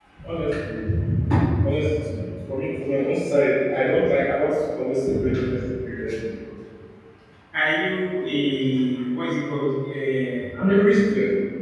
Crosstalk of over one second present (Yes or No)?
No